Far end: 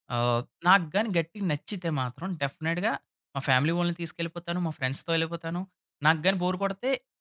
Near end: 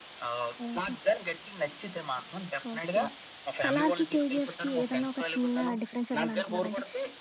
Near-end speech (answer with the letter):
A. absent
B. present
B